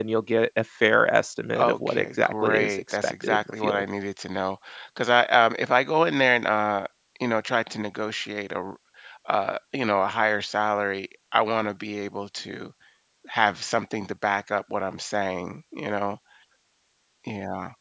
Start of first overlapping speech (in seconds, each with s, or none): 1.5 s